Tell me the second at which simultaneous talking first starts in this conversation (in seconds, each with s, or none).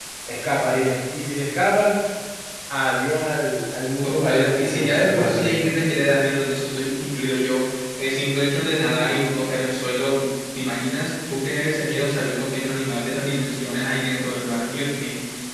4.0 s